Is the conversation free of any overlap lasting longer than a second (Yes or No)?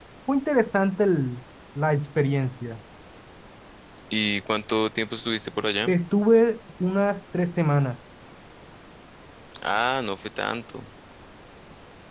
Yes